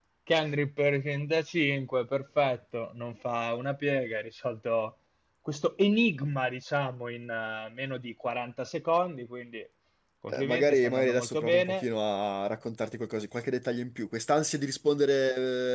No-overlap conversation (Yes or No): No